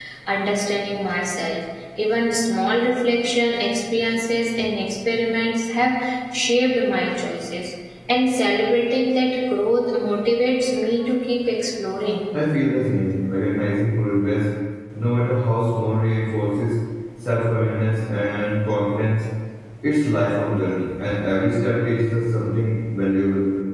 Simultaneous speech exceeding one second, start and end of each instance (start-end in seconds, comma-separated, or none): none